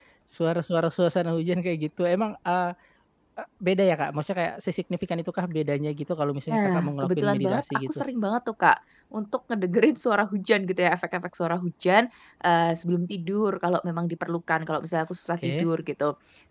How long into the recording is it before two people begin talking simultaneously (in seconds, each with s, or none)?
6.5 s